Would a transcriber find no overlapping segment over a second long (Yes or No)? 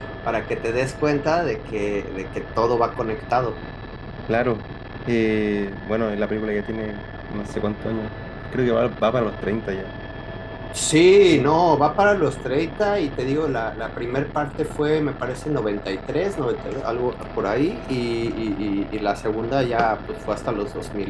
Yes